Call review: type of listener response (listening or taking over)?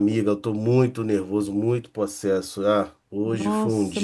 taking over